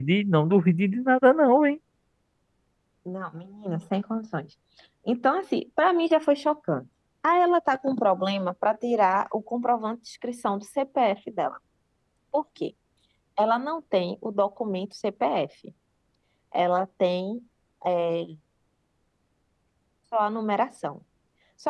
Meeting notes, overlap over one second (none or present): none